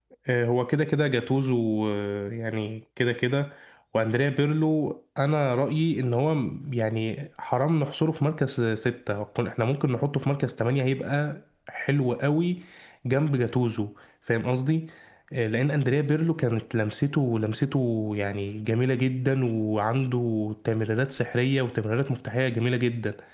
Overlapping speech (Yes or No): No